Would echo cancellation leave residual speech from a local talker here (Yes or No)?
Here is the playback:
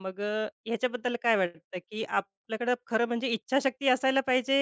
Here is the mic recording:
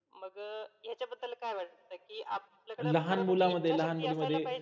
Yes